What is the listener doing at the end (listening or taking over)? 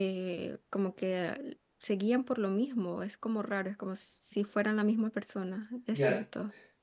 taking over